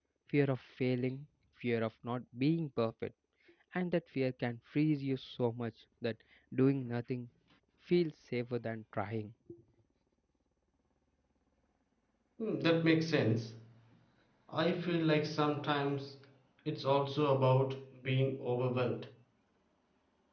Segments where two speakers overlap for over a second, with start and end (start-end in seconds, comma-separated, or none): none